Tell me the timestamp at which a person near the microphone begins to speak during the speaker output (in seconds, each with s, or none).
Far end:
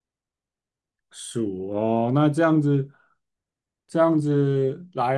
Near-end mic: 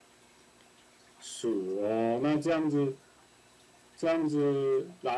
none